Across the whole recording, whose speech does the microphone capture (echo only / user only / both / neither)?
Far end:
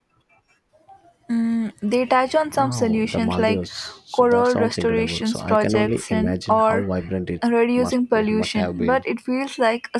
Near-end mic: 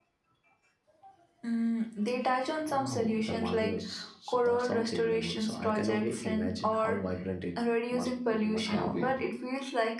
both